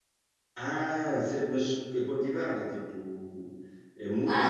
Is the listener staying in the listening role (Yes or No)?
No